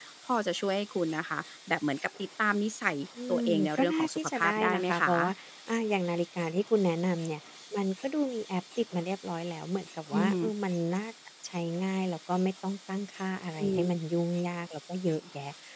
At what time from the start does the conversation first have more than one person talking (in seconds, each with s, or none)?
3.3 s